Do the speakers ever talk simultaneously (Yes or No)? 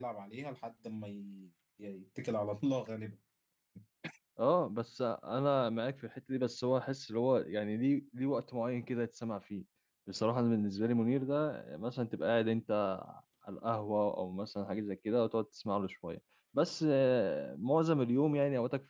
No